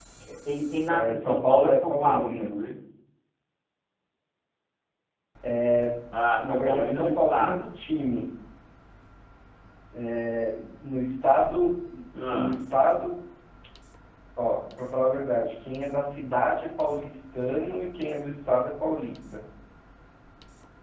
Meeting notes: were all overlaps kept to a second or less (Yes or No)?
No